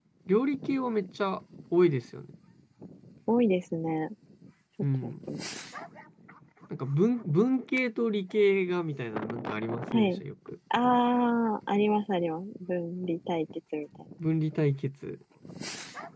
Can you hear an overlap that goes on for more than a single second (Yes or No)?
No